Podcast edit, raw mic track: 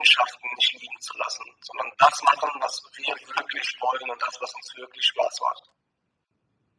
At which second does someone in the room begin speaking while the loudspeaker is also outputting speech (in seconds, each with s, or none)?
none